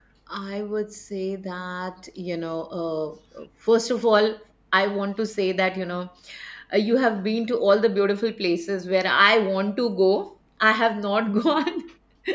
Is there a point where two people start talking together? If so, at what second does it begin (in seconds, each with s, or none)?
none